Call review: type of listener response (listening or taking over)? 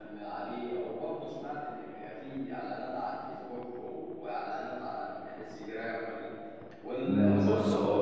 taking over